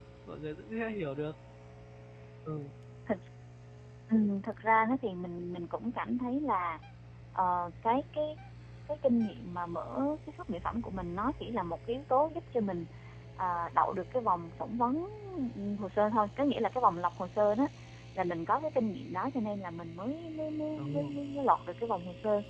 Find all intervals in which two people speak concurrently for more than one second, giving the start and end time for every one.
none

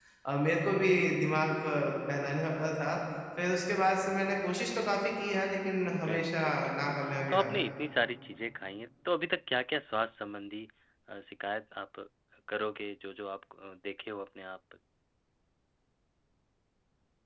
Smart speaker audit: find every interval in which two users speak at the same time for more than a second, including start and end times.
5.9-7.6

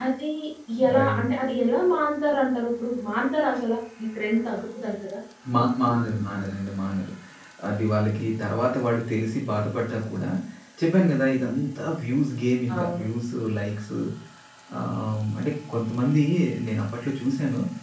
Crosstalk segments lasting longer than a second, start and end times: none

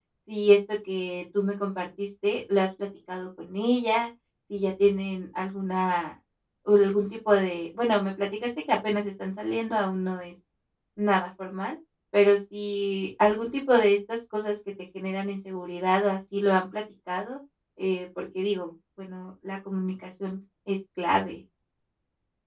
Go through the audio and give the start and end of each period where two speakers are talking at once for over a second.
none

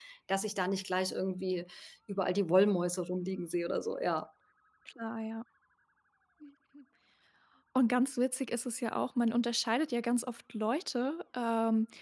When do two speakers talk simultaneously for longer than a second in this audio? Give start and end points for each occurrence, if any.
none

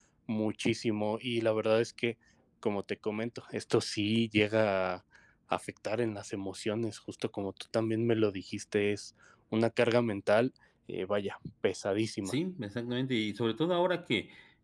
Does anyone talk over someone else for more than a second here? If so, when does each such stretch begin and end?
none

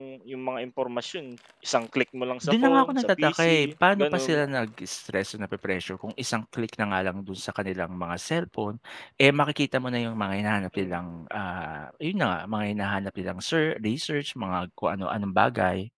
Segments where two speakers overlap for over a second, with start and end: 2.4-4.4

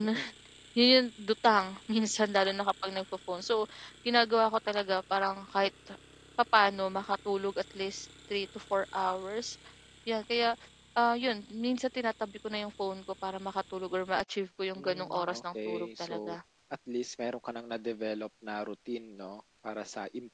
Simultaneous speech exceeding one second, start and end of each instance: 14.8-16.4

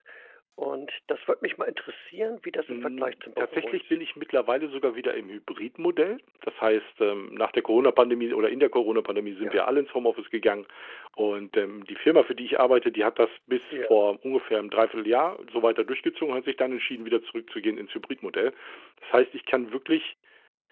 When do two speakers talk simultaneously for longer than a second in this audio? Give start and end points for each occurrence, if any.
2.7-4.0

